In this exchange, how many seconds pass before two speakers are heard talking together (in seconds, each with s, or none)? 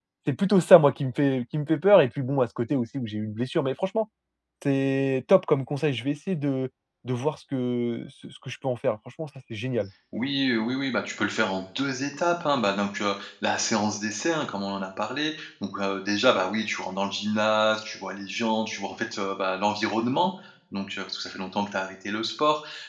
none